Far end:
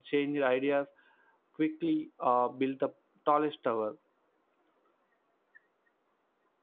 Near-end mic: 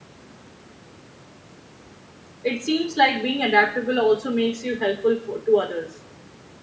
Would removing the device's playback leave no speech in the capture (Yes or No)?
No